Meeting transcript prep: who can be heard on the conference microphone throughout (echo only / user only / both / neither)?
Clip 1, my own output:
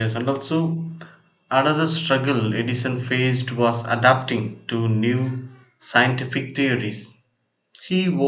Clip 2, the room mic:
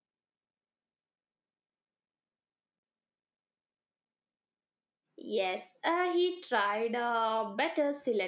user only